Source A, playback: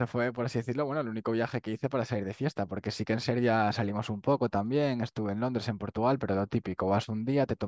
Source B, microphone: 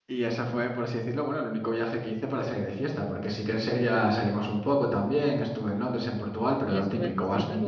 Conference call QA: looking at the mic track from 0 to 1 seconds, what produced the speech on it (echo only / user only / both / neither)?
echo only